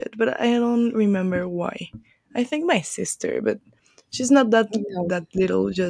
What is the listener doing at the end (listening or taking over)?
listening